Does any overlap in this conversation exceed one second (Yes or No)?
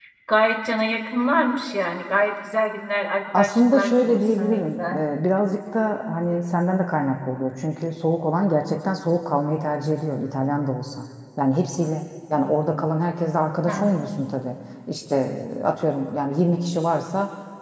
Yes